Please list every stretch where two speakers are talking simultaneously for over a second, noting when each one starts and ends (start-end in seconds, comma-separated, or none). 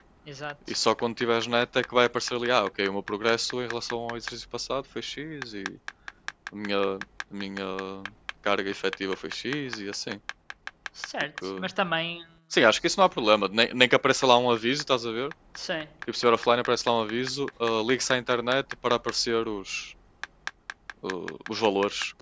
none